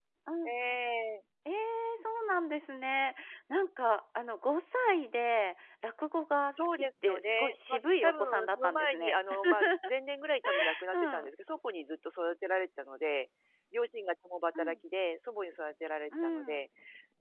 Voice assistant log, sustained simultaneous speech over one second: present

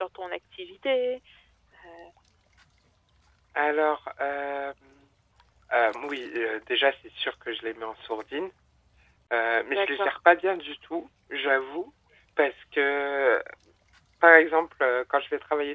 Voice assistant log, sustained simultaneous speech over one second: none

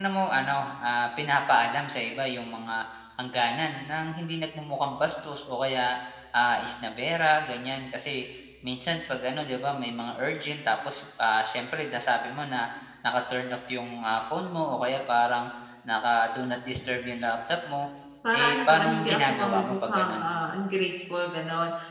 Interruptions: present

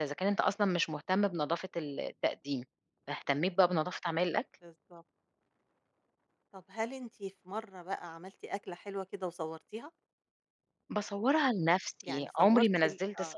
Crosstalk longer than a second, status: present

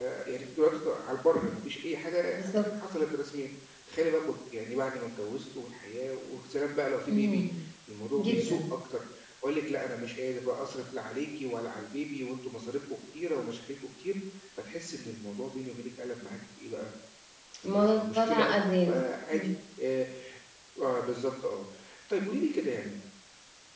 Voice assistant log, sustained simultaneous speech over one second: present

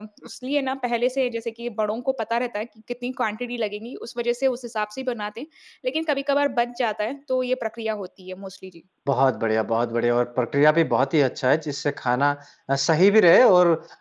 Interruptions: none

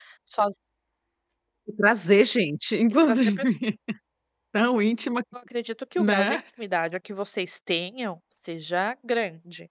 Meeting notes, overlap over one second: none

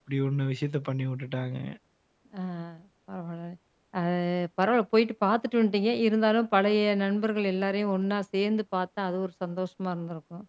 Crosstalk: none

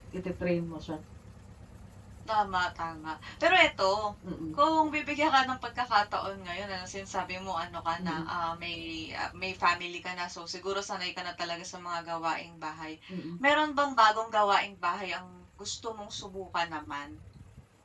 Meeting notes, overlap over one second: none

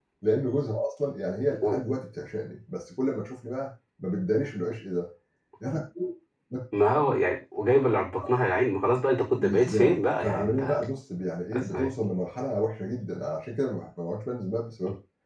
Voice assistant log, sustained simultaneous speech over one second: present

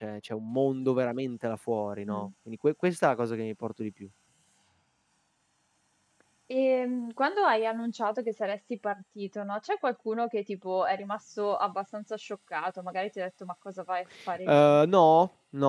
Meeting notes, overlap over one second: none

